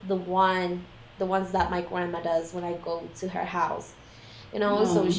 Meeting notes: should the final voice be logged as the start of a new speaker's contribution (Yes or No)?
No